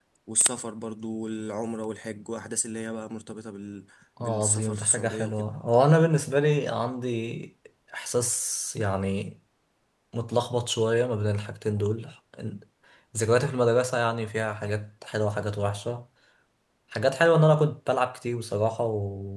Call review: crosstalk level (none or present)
present